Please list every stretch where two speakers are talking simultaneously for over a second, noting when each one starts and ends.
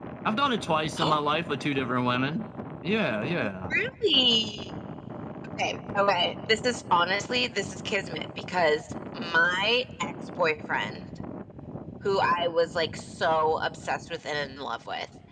none

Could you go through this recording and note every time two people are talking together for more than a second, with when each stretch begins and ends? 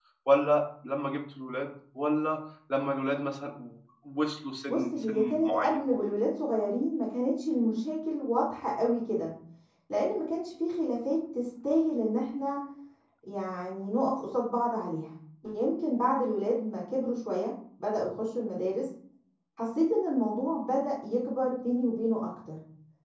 4.7-5.9

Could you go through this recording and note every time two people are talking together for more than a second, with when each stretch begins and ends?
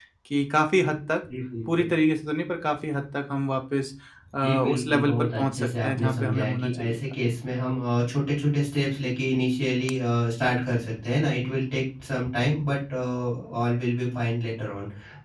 4.4-7.0

